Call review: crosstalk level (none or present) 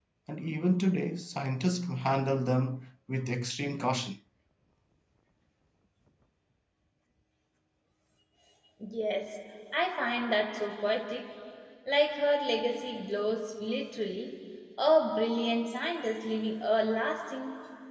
none